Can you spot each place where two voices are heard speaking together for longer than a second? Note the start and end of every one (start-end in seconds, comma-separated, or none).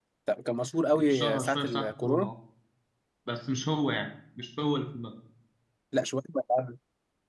1.0-2.3